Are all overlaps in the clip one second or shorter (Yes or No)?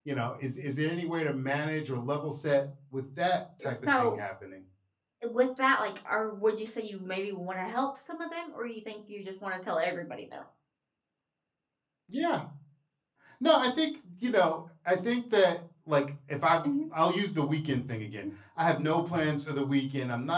Yes